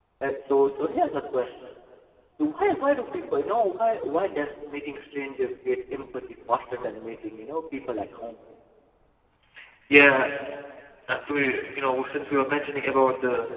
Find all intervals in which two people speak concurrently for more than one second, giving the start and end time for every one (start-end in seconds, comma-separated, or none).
none